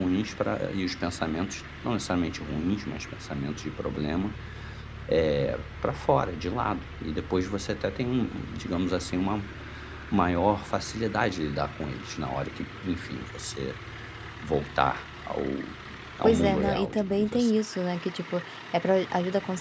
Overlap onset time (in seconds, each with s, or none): 16.2 s